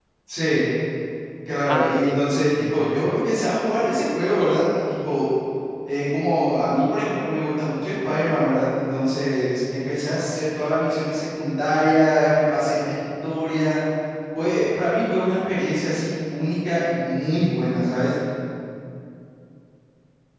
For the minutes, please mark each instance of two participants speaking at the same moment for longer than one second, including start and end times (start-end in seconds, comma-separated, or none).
1.7-3.2